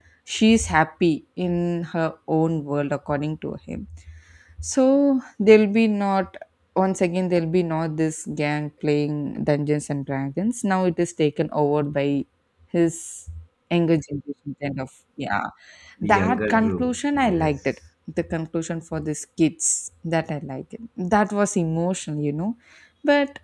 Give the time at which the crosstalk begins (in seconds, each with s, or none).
16.0 s